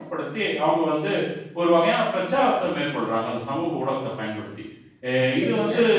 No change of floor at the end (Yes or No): Yes